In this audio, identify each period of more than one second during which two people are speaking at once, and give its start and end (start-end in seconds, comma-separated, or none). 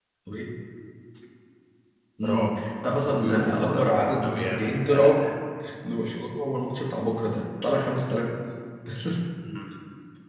2.2-5.1